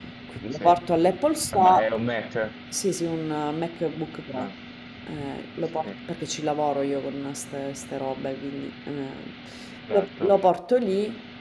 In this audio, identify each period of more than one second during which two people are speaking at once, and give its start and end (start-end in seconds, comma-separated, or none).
none